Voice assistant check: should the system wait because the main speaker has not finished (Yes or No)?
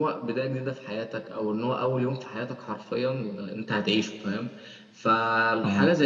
Yes